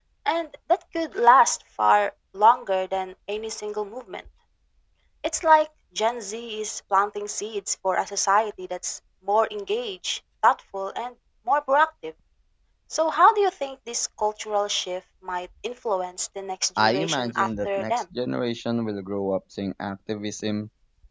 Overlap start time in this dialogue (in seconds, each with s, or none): 16.8 s